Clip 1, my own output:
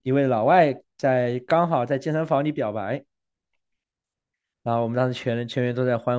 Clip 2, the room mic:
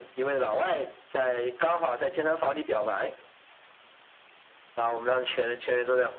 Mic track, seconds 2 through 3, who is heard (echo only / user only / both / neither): echo only